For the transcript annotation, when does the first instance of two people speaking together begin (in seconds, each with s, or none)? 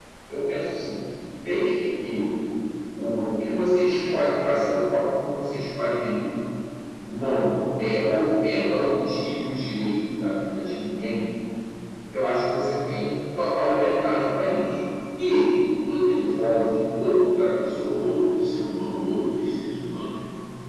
none